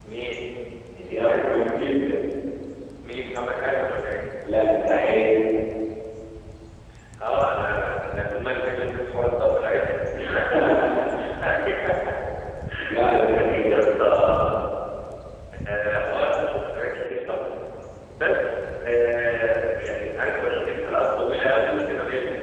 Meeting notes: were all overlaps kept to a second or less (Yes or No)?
No